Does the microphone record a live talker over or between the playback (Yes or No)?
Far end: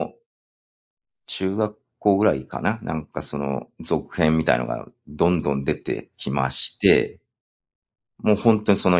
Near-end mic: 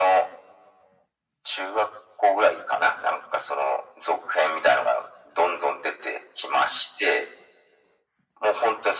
No